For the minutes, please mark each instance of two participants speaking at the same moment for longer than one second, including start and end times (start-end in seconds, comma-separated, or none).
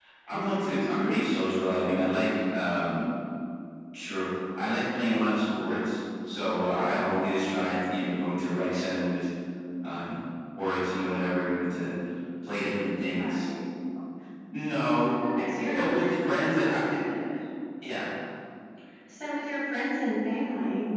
15.7-17.0